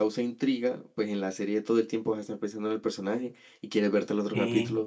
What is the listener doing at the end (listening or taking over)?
listening